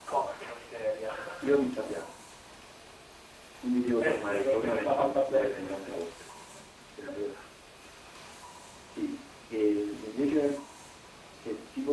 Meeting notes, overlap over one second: present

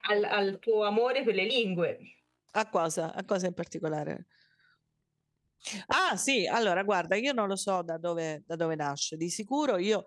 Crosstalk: none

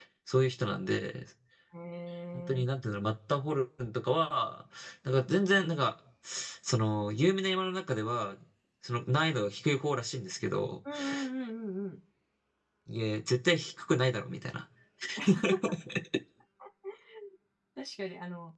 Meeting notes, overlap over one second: none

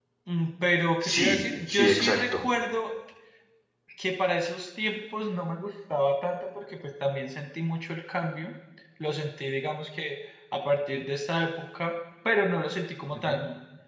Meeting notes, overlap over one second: present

